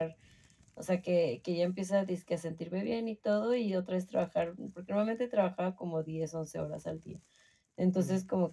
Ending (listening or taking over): listening